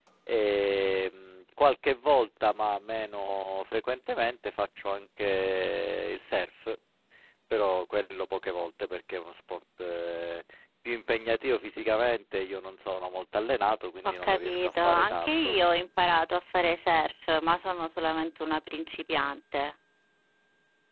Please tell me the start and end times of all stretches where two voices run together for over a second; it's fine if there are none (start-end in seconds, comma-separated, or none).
14.0-15.6